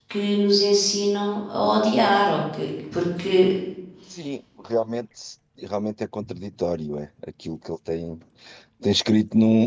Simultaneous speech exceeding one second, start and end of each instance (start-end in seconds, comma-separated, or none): none